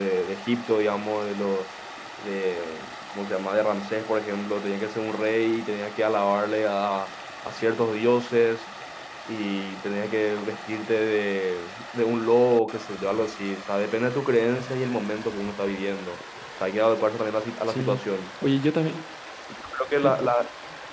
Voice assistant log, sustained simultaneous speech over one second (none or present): none